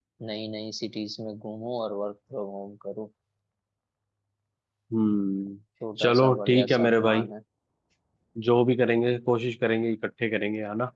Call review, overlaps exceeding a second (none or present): present